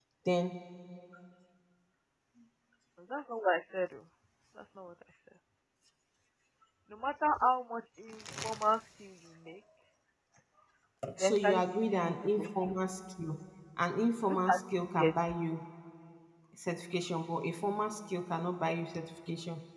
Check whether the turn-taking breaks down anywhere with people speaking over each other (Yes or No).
Yes